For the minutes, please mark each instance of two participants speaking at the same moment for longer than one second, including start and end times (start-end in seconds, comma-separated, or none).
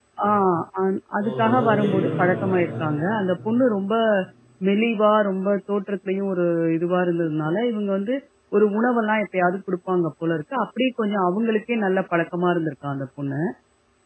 1.2-2.7